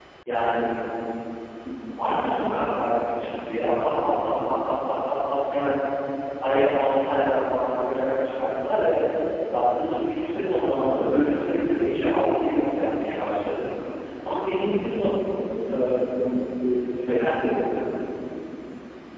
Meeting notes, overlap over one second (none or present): none